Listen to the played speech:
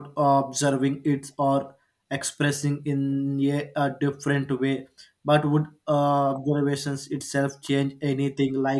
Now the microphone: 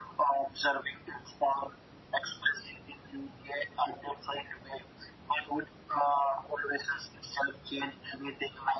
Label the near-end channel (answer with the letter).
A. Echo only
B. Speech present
A